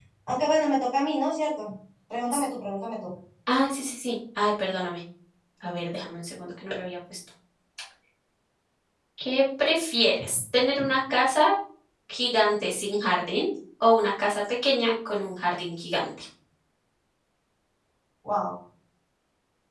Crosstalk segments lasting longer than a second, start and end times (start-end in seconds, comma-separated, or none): none